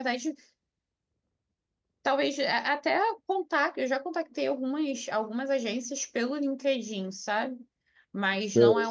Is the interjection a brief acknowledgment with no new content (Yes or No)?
Yes